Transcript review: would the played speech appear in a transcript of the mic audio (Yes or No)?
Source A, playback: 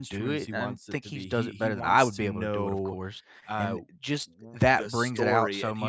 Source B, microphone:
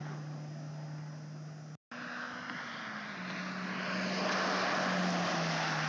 No